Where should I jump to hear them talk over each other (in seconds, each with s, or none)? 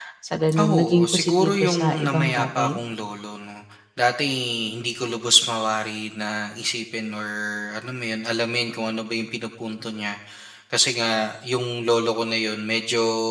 0.6 s